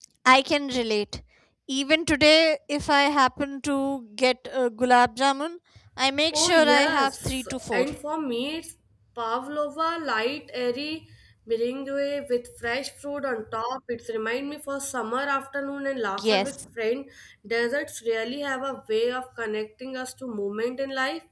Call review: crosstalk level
present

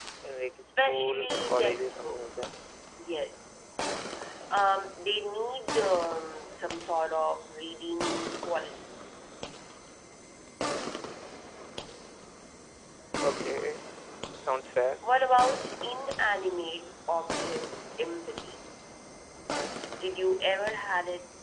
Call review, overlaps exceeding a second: present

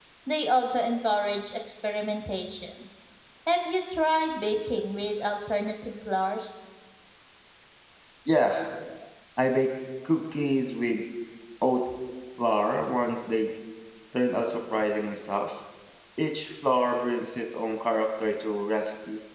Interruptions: none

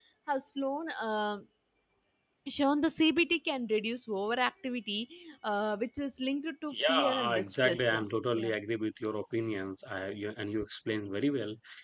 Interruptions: present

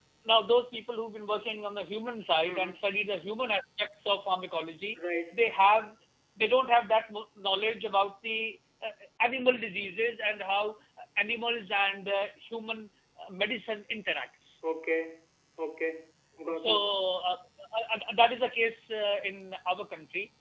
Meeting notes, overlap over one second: none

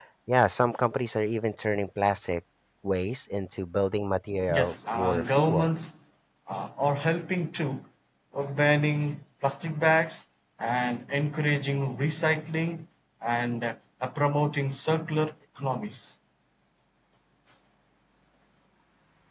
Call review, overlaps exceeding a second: present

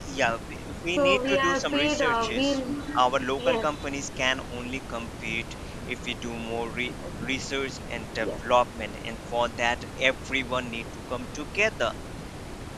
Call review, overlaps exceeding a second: present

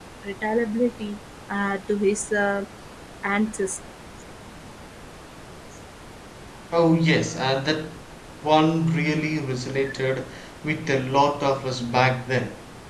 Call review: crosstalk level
none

